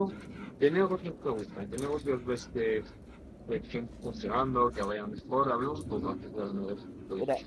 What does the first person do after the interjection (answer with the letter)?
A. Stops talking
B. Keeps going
A